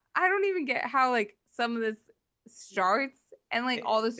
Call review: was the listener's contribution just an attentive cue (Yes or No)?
Yes